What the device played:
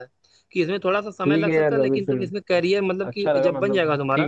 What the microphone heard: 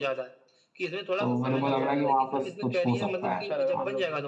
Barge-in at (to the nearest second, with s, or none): 1 s